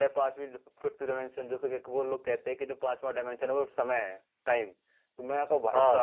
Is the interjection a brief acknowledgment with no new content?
Yes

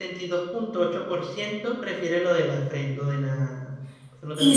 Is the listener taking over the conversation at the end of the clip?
Yes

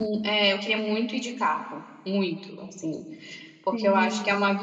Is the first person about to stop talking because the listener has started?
No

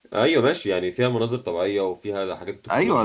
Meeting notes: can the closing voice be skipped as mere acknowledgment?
No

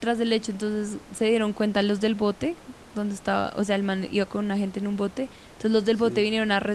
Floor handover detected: No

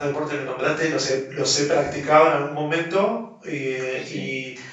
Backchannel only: Yes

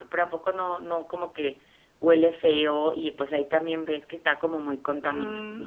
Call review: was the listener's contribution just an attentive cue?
No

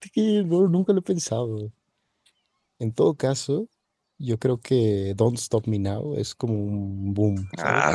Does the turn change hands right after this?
Yes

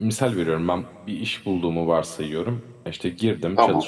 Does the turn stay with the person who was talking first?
Yes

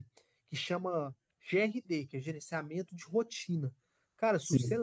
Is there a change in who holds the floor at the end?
No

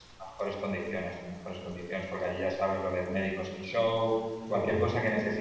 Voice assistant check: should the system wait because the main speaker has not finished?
Yes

